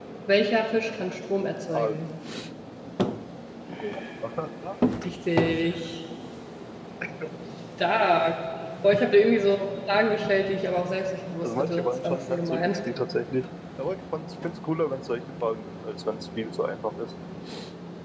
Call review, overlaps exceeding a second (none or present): present